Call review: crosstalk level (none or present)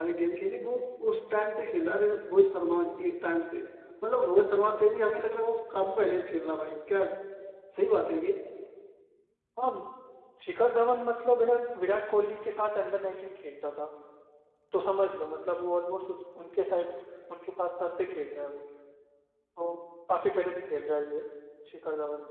none